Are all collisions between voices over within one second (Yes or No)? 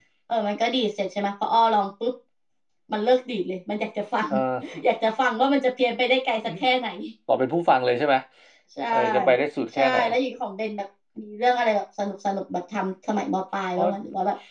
Yes